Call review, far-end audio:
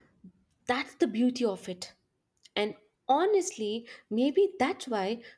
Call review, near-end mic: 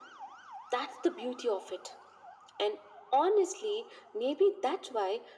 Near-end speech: none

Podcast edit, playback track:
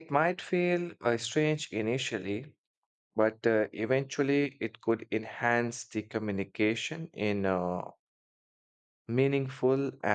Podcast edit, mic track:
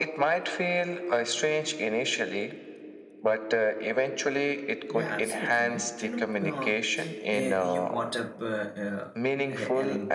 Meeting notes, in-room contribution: present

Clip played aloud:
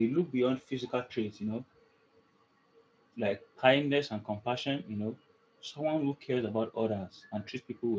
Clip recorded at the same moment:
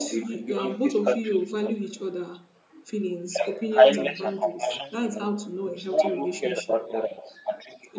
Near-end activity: present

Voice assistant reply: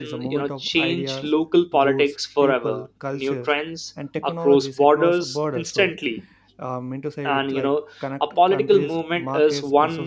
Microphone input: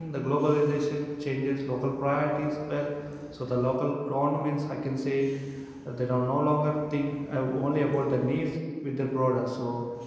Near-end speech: present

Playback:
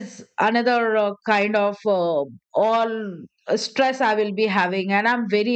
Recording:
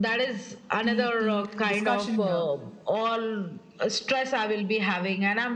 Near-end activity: present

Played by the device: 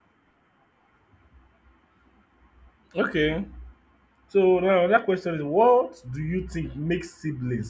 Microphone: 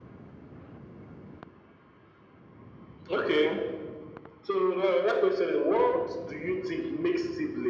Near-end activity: none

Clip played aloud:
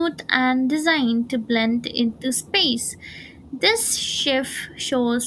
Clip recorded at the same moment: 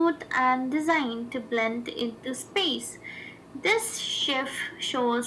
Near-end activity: none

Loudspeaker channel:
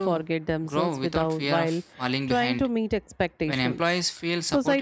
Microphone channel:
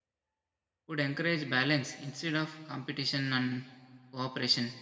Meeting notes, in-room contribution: present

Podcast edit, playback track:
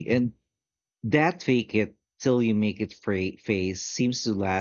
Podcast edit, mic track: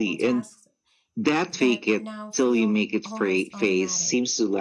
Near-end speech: present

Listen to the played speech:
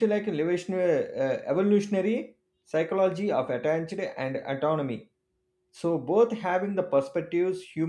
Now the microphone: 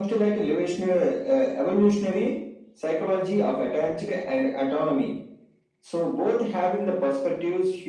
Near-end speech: none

